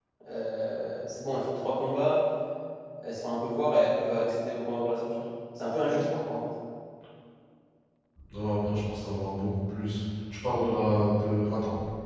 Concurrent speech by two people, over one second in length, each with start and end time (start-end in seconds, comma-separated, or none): none